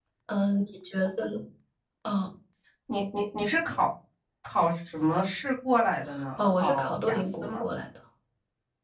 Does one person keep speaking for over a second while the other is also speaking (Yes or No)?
Yes